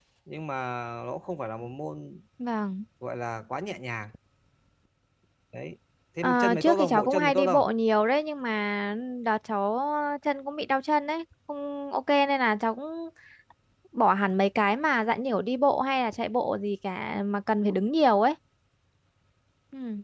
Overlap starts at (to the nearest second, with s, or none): 6 s